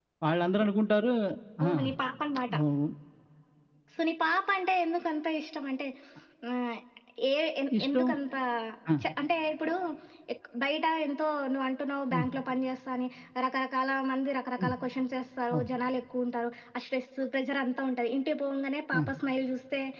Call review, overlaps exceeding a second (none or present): none